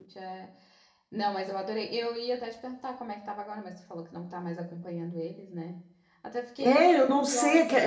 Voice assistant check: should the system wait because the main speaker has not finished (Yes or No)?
No